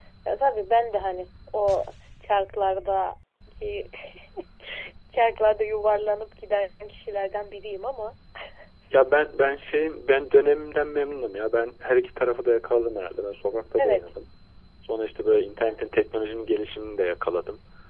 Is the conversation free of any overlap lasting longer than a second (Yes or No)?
Yes